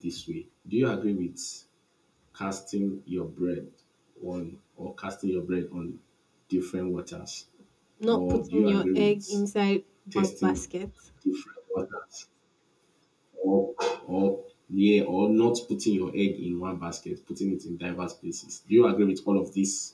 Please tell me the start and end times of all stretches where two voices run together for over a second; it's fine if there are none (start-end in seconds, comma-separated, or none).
8.1-9.4